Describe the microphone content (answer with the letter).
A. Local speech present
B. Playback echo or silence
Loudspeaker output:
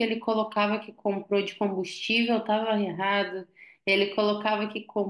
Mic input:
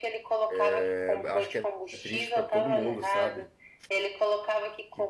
A